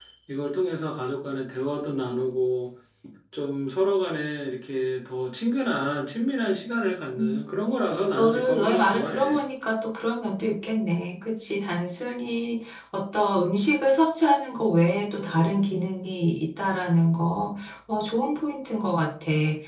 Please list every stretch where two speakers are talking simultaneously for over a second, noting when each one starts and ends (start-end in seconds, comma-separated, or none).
8.2-9.4